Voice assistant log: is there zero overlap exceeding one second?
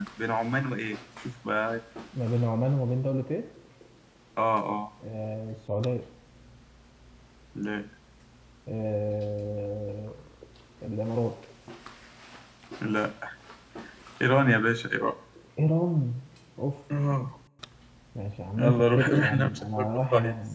No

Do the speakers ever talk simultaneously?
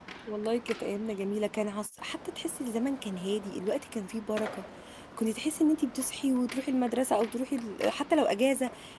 No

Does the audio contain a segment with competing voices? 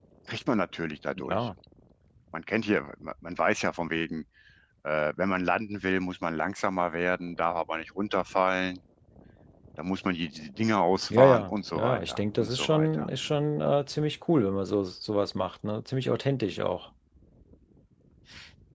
Yes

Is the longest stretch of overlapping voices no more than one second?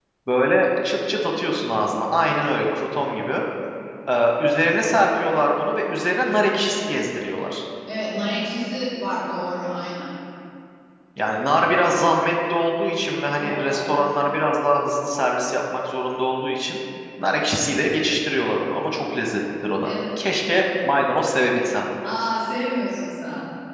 Yes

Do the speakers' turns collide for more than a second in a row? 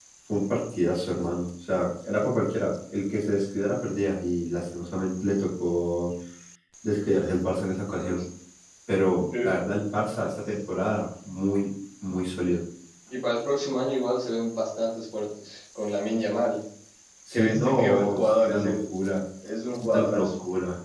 Yes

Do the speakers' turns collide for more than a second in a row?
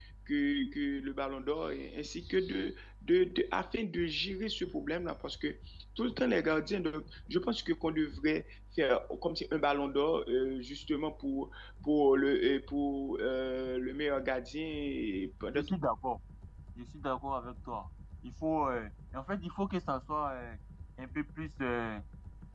No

